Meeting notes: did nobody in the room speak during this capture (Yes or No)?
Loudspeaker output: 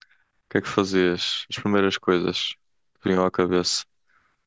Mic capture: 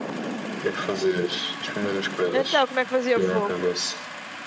No